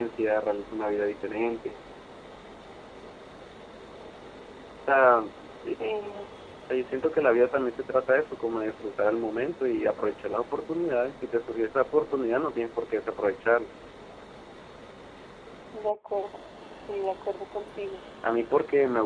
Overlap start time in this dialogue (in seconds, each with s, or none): none